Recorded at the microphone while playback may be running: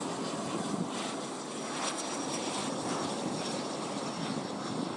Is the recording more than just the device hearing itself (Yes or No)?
No